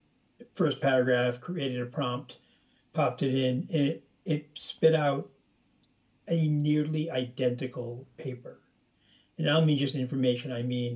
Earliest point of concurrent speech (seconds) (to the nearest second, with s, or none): none